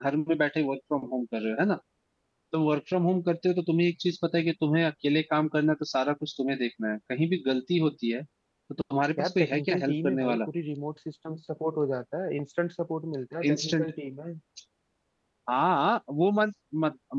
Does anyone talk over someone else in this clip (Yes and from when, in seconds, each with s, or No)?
Yes, from 9.2 s